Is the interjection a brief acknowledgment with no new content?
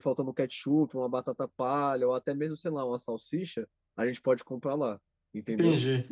No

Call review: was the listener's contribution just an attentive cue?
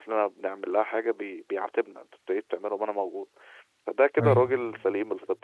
Yes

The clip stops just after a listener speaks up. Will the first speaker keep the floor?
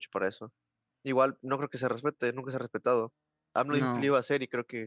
Yes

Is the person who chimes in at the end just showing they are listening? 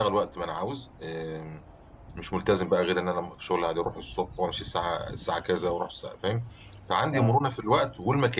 Yes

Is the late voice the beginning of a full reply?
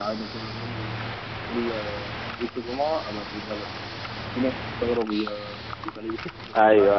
Yes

